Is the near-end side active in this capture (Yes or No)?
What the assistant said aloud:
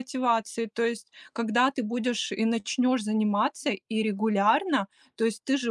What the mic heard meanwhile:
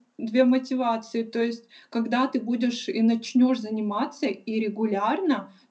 No